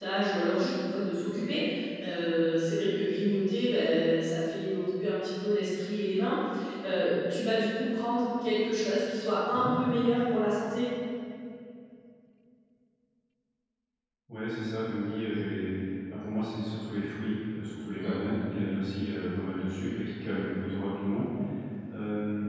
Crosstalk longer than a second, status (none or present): none